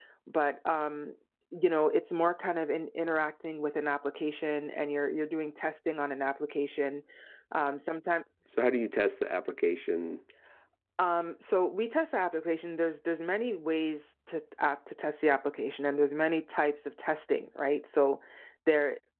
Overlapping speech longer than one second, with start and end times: none

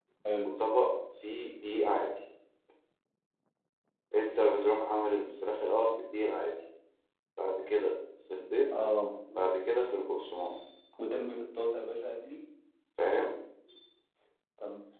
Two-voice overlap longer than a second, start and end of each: none

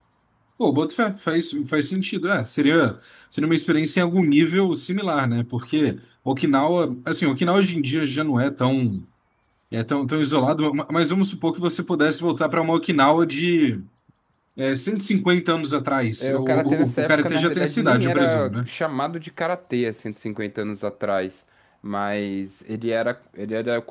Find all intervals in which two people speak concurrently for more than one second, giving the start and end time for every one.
16.2-18.7

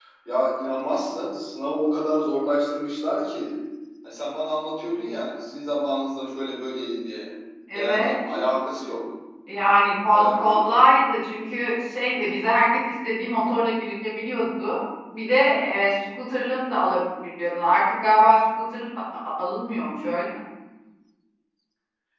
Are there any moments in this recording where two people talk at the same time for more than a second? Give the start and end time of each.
none

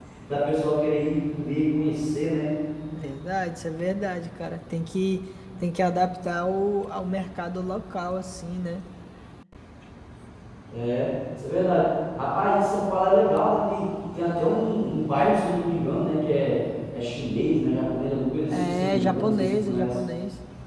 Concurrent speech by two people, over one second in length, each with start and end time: 18.5-19.9

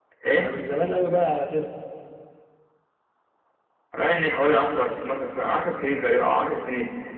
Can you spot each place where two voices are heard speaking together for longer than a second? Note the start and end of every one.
none

